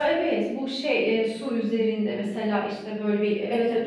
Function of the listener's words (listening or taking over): taking over